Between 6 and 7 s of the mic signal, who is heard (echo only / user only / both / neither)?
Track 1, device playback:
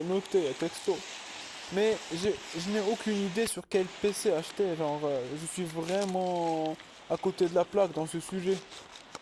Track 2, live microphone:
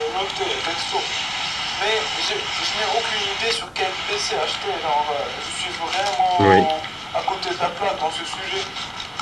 both